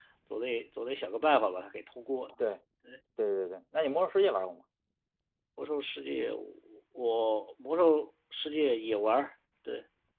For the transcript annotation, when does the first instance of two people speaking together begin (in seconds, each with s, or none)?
none